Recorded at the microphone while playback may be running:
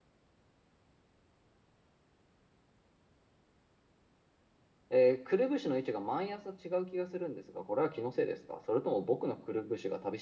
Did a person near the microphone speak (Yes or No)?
Yes